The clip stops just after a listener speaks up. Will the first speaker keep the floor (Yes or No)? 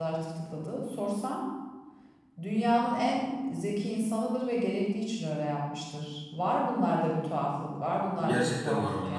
No